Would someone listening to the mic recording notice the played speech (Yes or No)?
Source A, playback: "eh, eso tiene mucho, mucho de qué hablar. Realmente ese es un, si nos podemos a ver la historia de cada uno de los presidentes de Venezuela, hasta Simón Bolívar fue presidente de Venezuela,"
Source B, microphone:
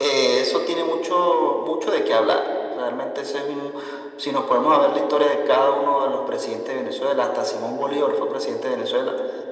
Yes